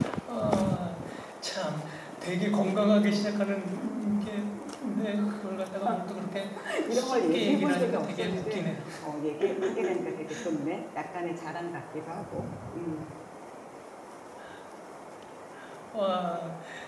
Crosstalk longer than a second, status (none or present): present